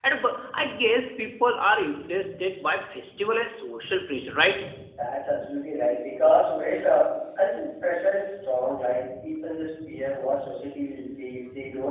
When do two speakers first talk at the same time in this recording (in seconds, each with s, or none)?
none